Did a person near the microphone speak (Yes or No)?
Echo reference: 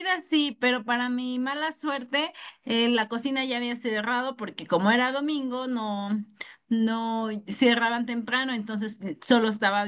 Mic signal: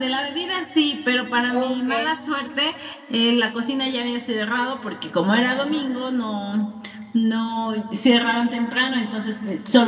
Yes